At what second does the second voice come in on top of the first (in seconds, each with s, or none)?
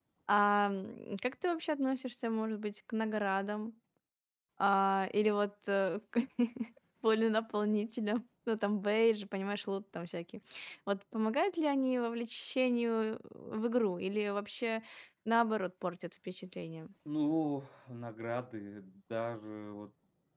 none